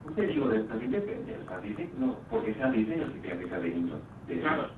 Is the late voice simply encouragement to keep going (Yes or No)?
No